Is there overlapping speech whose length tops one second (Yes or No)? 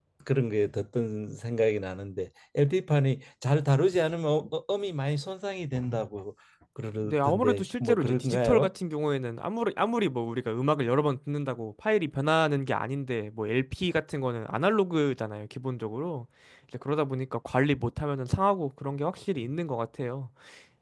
Yes